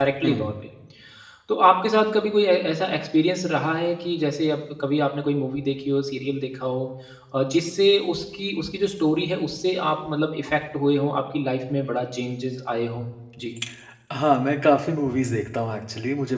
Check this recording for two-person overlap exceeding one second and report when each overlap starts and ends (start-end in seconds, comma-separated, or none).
none